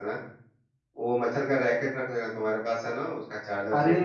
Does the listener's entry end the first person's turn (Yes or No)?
Yes